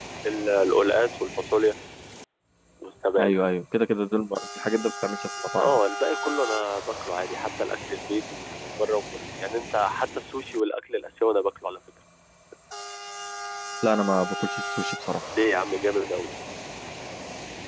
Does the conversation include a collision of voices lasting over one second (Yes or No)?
No